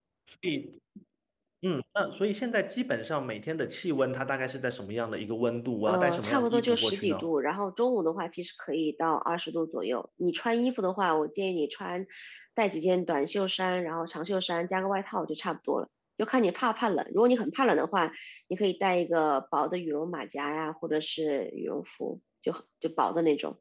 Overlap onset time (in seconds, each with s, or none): 5.9 s